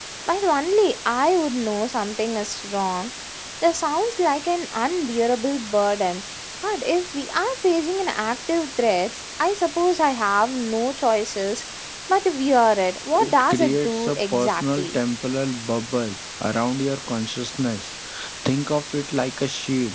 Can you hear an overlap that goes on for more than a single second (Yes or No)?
Yes